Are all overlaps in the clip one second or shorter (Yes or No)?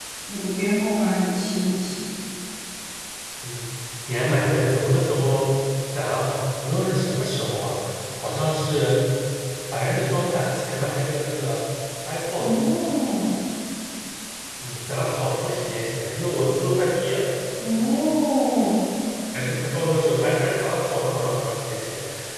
Yes